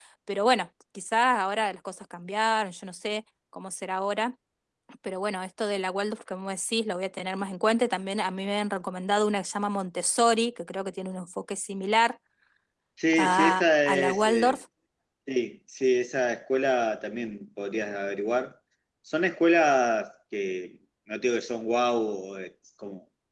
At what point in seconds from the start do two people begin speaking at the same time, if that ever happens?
13.1 s

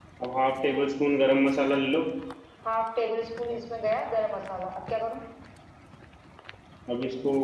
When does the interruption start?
none

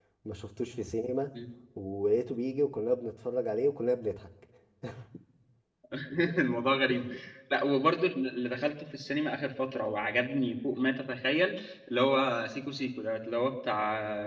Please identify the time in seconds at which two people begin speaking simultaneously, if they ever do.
none

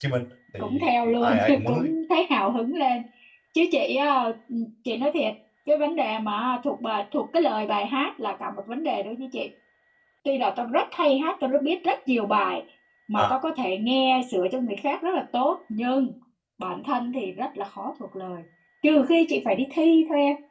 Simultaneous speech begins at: 0.6 s

